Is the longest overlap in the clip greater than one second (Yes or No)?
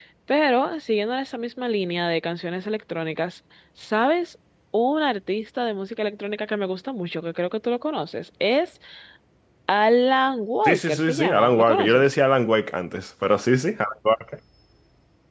Yes